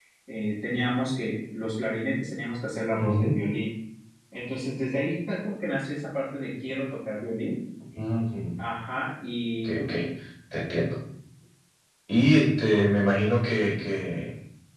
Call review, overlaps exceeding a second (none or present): none